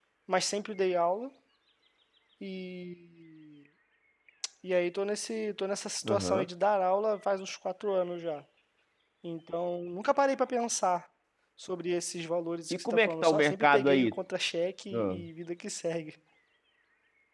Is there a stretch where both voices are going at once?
Yes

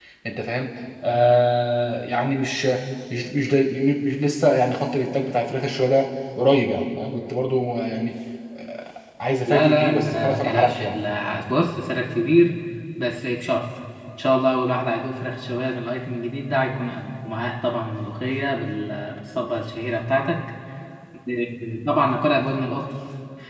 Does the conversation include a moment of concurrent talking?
Yes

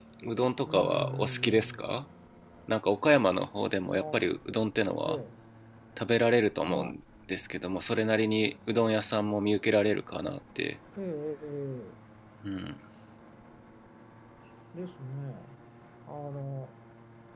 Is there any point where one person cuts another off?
Yes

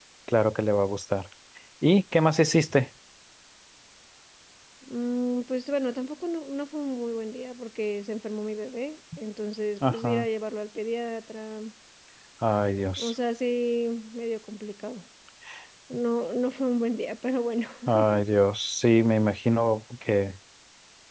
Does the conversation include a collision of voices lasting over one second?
No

